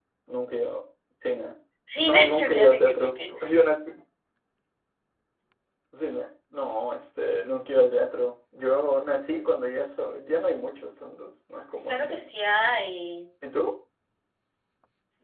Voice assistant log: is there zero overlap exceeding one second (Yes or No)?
No